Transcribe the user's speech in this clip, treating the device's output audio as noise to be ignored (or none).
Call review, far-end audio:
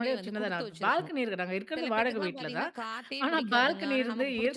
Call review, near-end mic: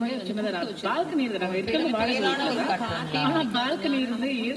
ஒரு பெரும் புயலான ஒரு காற்றுங்களா?